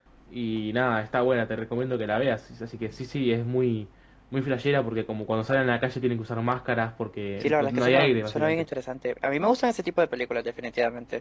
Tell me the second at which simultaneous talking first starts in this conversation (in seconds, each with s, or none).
7.4 s